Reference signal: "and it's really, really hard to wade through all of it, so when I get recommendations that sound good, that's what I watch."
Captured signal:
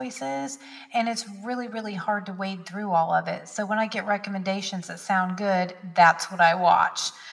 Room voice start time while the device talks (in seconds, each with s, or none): none